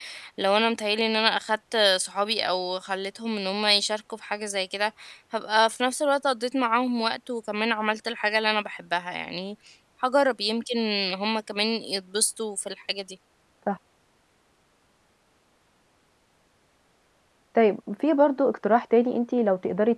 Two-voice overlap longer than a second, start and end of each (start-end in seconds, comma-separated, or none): none